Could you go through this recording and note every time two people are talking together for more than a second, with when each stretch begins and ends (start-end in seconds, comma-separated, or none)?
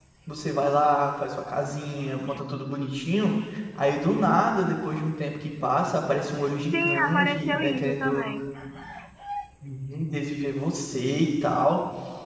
6.6-8.3